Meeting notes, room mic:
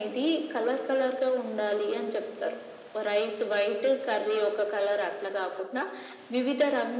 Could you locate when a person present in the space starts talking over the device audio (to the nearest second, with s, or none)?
none